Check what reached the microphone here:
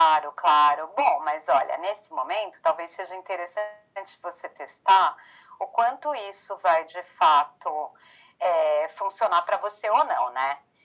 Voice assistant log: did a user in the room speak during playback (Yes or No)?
No